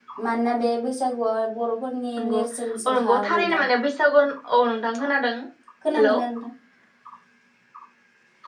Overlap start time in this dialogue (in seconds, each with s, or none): 2.2 s